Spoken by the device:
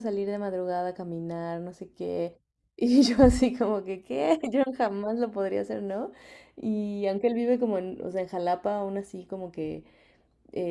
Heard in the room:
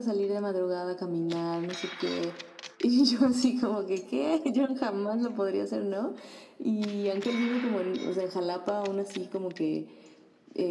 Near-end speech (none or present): none